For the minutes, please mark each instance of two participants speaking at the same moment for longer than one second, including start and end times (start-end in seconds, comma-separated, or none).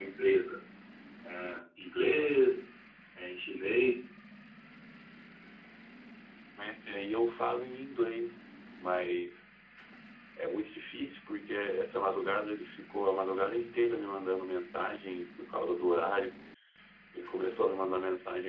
none